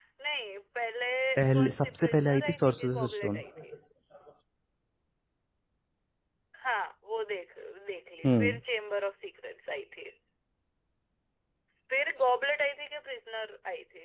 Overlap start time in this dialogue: 1.6 s

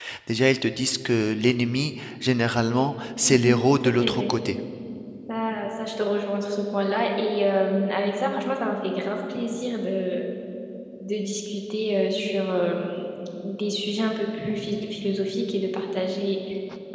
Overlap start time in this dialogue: 2.5 s

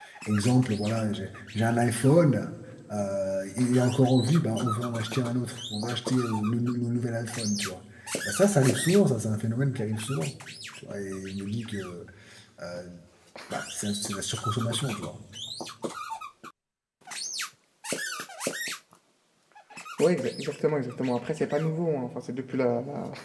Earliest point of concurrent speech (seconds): none

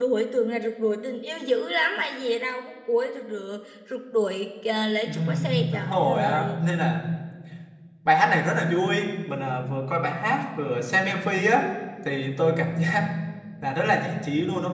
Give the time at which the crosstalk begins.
5.1 s

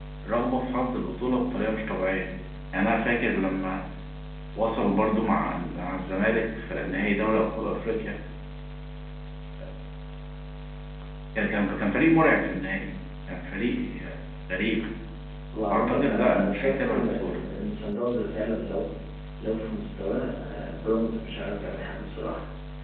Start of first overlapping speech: 15.7 s

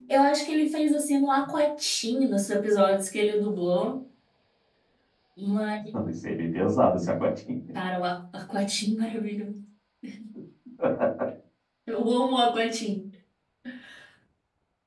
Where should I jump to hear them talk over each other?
none

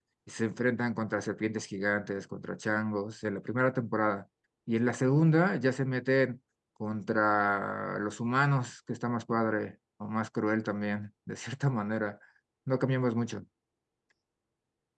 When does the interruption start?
none

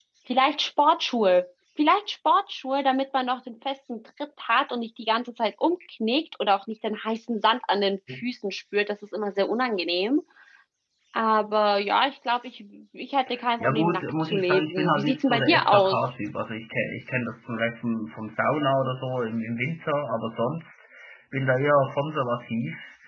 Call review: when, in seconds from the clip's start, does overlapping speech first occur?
13.6 s

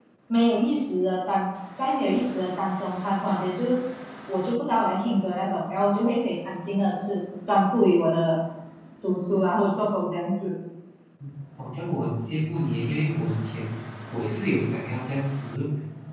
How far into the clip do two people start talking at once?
none

